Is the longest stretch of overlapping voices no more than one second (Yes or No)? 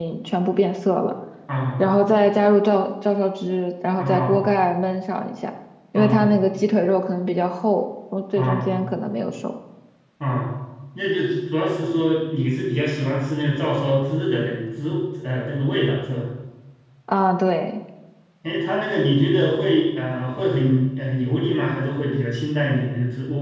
Yes